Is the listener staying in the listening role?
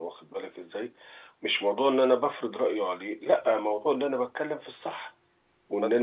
No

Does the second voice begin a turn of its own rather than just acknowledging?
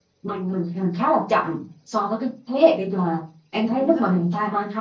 No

